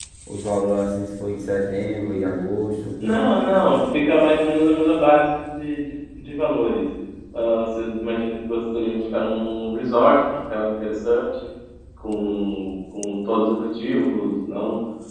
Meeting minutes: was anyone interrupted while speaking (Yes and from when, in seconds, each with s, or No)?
No